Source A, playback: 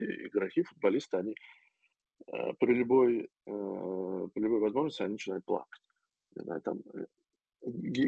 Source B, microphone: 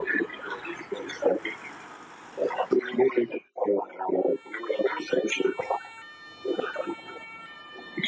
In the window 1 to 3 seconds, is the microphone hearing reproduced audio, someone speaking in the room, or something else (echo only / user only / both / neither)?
echo only